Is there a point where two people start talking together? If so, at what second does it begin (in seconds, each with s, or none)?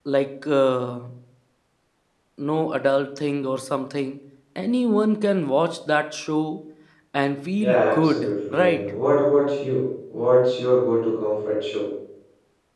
7.6 s